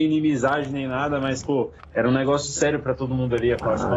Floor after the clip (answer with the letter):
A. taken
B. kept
A